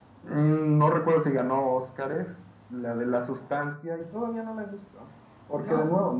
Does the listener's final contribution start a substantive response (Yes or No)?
No